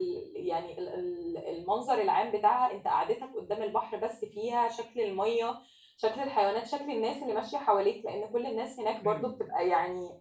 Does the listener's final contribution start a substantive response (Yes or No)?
No